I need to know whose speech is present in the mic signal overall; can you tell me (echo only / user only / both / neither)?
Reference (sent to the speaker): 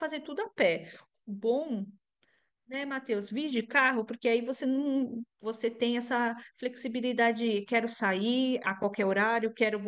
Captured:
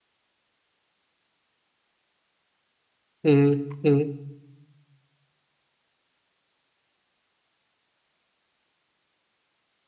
user only